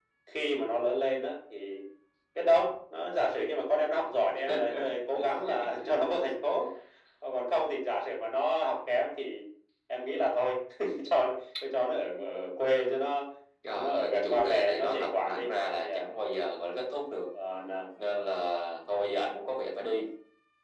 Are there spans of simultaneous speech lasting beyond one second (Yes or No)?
Yes